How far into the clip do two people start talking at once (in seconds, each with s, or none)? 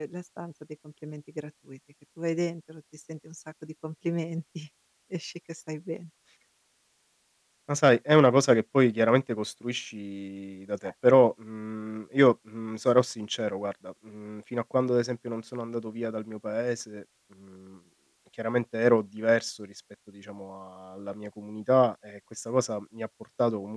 none